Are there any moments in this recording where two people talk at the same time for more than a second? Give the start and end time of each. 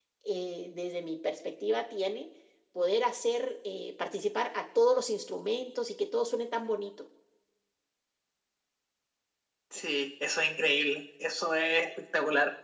none

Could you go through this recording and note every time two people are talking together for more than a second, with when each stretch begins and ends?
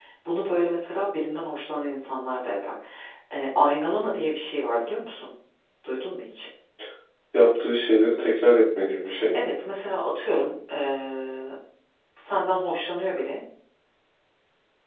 none

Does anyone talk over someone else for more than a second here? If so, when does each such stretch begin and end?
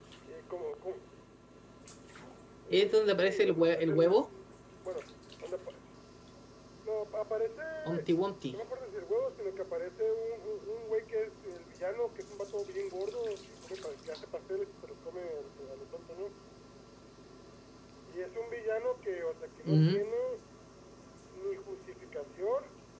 2.7-4.3

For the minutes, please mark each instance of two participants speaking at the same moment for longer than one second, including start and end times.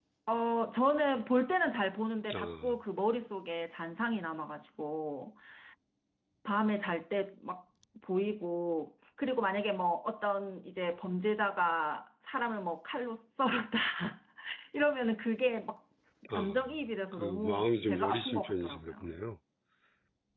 17.1-18.9

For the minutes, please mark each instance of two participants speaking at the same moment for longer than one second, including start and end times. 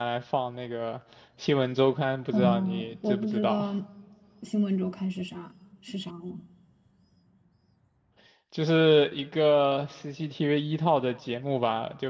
2.3-3.7

